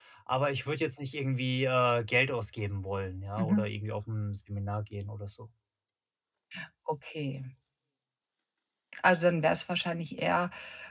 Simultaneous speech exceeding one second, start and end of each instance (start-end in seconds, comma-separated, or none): none